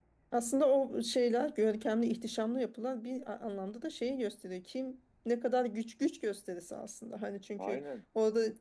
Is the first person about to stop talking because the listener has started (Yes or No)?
No